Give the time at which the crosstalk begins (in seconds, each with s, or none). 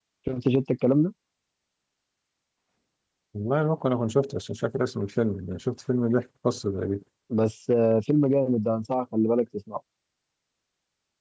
none